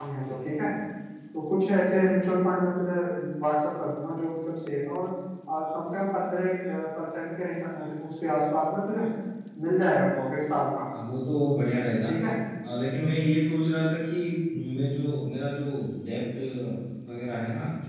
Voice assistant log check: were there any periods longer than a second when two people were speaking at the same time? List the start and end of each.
none

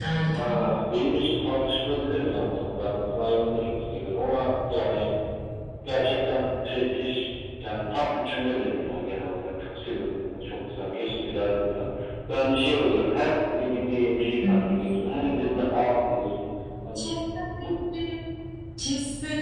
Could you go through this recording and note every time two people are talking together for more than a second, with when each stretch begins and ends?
none

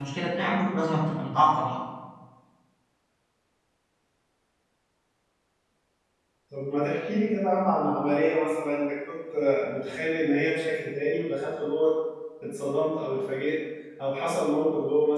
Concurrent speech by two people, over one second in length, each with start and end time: none

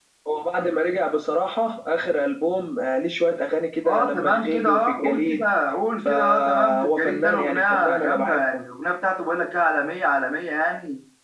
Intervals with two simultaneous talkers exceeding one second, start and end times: 3.9-5.4, 6.0-8.6

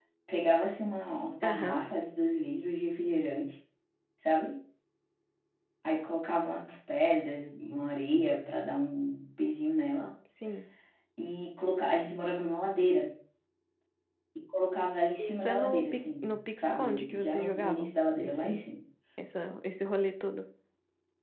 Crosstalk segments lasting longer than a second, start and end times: 15.2-18.6

